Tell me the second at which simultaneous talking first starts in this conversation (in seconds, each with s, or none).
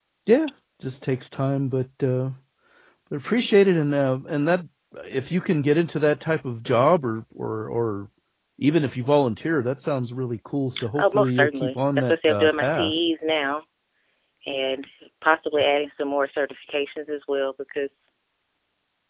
10.8 s